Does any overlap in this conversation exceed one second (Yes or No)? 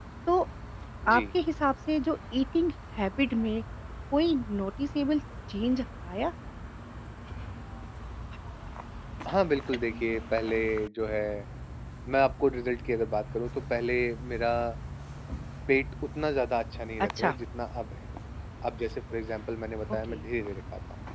No